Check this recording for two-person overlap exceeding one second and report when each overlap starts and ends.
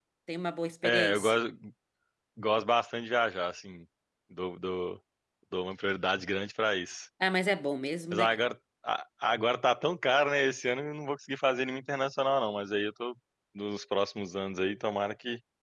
none

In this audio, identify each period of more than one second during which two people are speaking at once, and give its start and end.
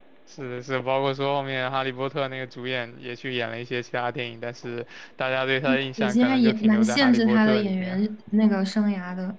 6.0-8.0

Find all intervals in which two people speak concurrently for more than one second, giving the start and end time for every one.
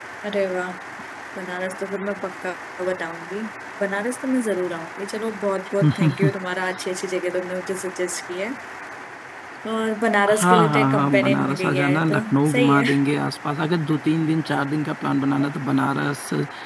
10.3-12.8

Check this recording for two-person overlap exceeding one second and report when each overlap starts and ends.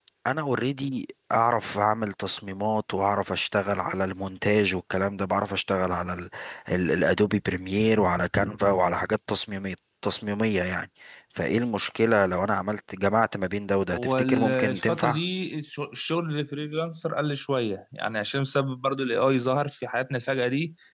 13.9-15.2

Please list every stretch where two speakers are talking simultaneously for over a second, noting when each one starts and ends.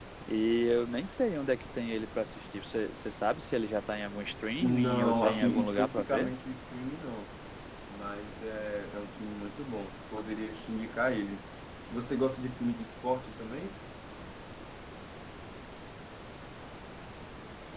4.6-6.3

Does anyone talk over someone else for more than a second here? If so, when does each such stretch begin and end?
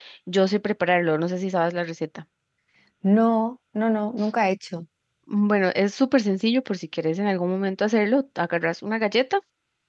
none

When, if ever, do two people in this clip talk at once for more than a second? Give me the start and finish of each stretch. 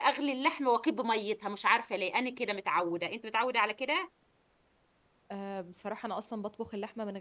none

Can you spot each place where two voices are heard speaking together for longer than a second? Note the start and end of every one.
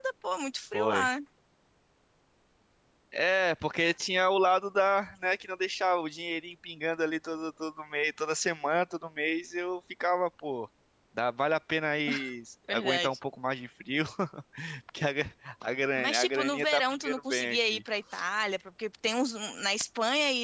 16.0-17.8

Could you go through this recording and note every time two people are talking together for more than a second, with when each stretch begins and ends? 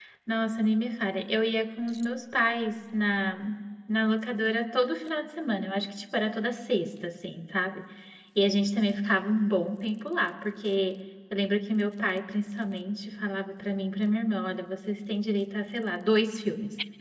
none

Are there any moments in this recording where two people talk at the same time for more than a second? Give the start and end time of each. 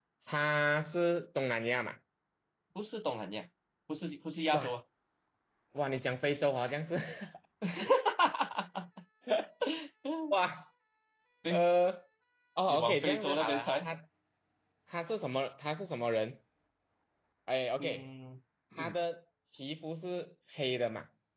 12.7-13.9

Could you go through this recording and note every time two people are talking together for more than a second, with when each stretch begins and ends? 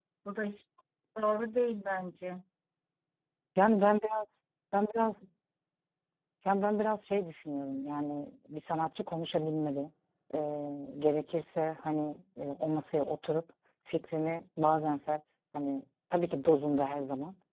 none

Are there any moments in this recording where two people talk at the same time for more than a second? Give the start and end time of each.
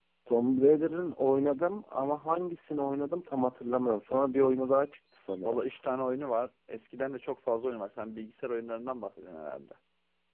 none

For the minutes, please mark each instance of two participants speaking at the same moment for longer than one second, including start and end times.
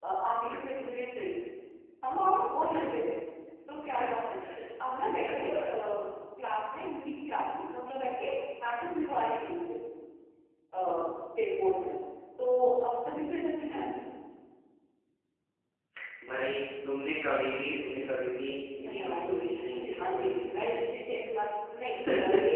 18.8-21.0

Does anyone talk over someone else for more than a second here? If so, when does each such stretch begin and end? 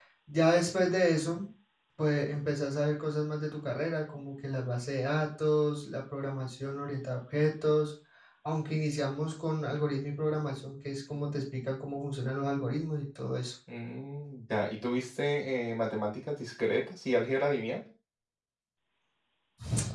none

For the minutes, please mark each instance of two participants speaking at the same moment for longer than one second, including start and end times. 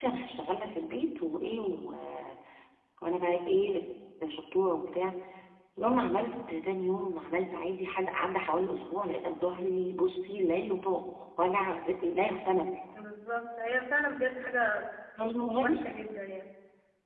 none

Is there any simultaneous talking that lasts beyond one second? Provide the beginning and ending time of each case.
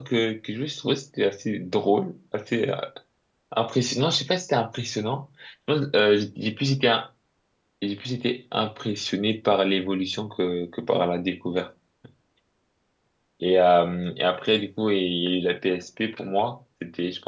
none

